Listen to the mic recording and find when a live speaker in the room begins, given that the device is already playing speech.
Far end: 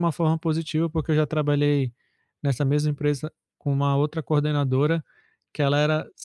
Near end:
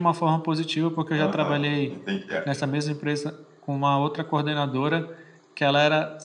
1.1 s

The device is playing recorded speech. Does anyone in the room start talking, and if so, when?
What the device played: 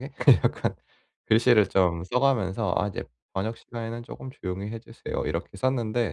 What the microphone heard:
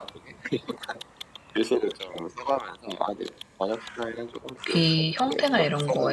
4.7 s

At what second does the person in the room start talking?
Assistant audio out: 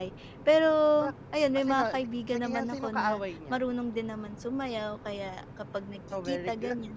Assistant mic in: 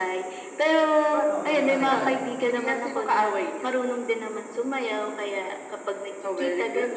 1.3 s

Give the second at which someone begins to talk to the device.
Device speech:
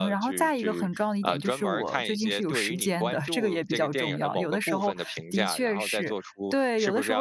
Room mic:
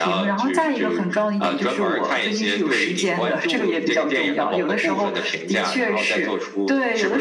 none

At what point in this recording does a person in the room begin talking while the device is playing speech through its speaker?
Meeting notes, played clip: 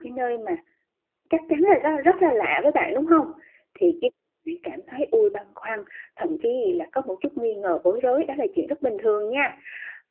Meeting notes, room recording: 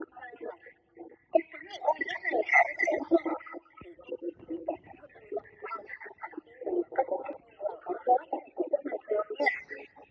none

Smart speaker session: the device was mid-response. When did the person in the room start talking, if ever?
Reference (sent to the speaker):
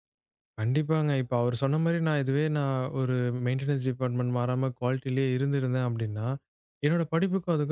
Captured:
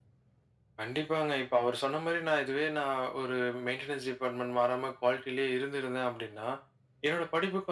none

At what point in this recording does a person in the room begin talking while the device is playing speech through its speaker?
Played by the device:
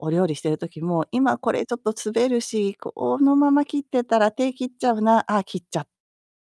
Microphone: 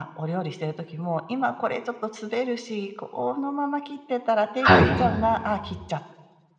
4.6 s

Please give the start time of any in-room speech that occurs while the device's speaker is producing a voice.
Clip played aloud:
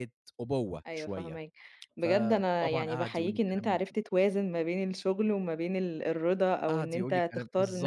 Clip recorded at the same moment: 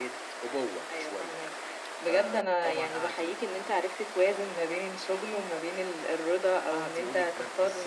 none

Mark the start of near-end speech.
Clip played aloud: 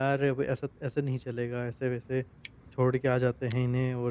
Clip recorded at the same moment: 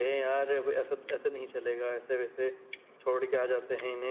none

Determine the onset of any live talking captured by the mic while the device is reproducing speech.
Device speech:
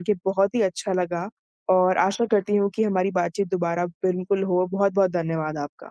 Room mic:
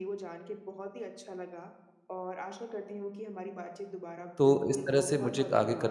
4.4 s

